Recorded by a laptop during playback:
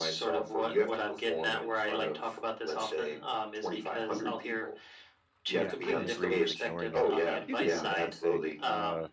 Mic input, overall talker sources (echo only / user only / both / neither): both